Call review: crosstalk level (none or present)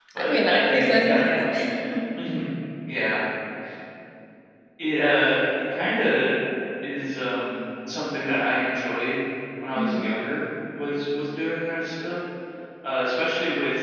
present